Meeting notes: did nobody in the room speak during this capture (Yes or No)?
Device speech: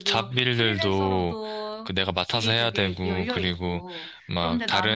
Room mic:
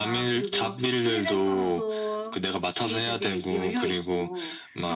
Yes